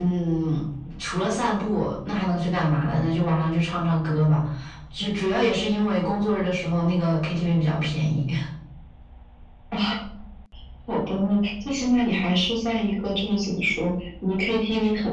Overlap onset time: none

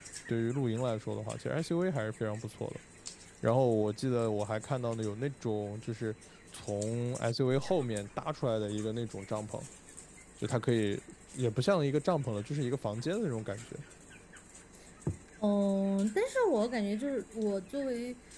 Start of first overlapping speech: none

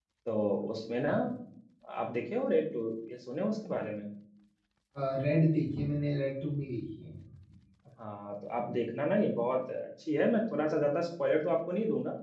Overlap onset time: none

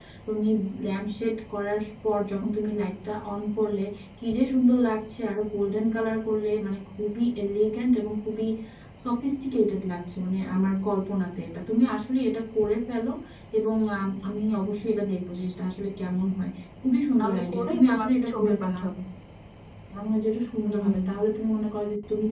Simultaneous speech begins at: 17 s

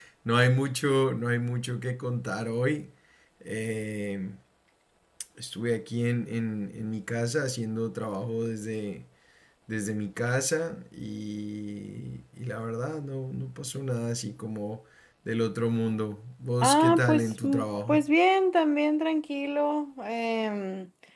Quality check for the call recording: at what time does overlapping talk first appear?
17 s

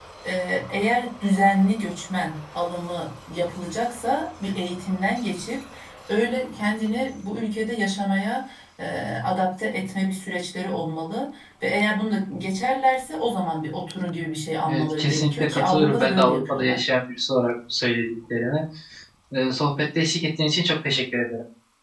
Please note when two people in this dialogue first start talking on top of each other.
15 s

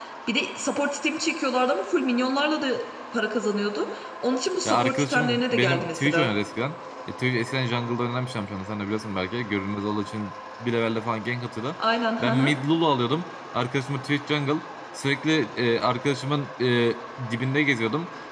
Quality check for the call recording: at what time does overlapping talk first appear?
5 s

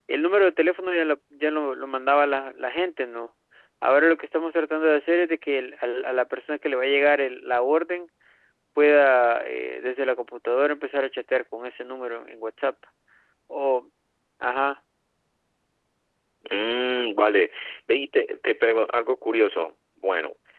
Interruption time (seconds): none

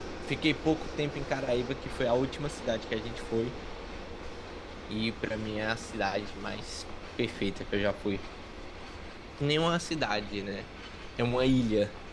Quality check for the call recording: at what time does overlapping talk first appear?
none

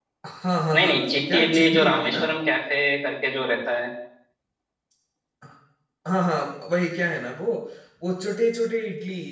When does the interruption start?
1 s

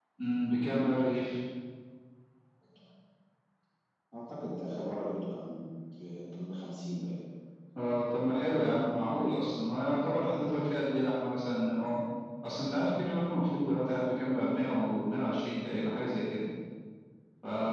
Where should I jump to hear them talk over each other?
none

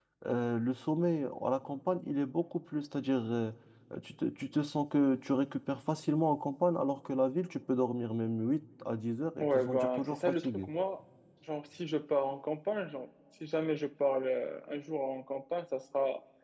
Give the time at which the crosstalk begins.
9 s

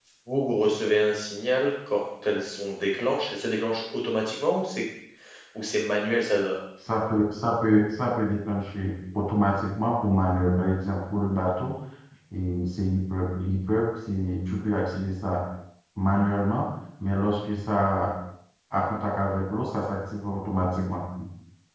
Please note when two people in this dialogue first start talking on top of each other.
none

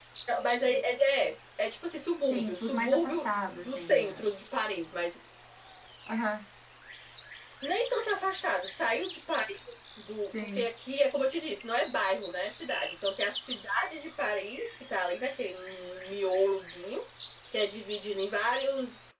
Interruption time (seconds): 2 s

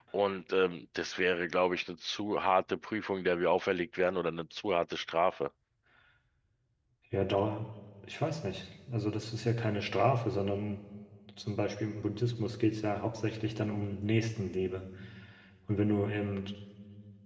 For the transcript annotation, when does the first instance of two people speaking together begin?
none

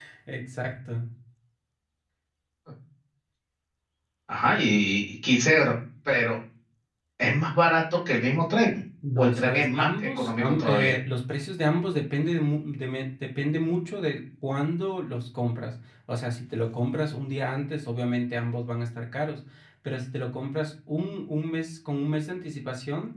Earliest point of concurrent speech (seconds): 9 s

